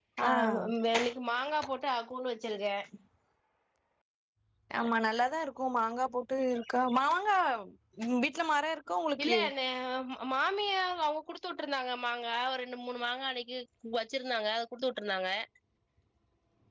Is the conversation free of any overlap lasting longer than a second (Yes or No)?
Yes